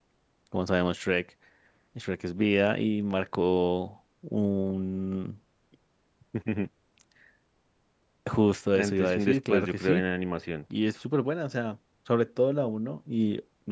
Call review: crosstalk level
present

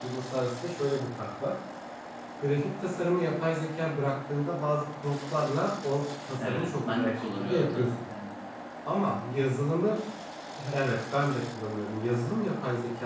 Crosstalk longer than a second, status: present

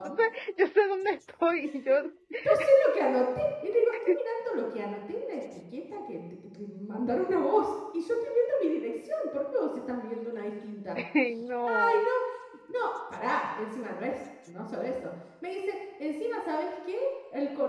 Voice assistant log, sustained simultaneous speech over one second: none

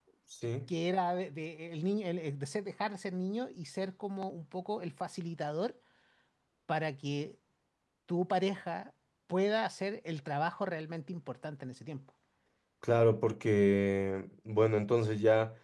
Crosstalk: none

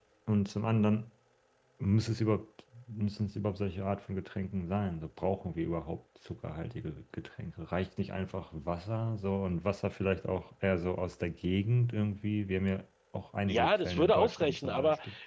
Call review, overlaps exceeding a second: present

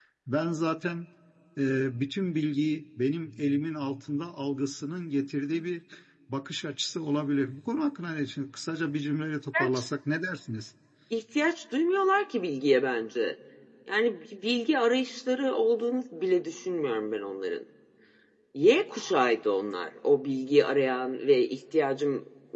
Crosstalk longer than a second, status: none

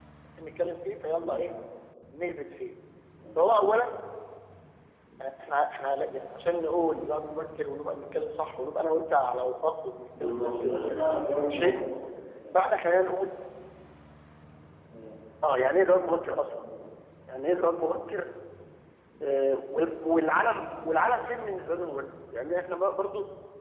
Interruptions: present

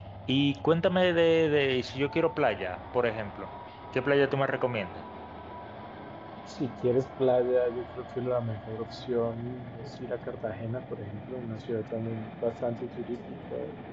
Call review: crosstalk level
none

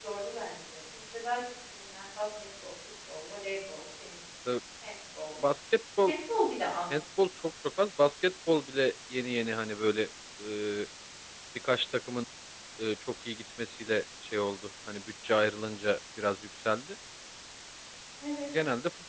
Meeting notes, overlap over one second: none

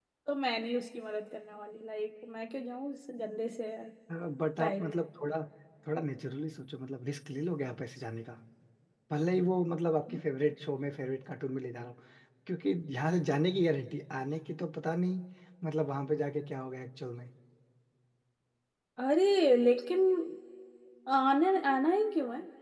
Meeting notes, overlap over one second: none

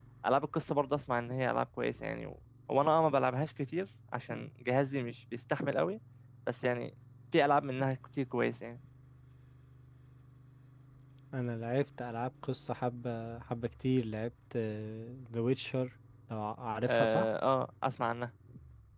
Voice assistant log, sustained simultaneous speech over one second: none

